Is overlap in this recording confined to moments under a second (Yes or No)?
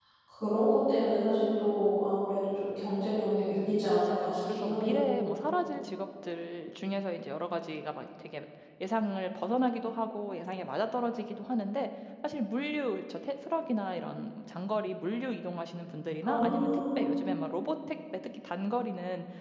No